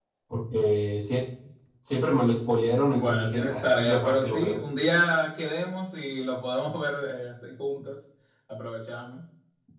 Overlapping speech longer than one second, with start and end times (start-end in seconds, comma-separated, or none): 2.9-4.6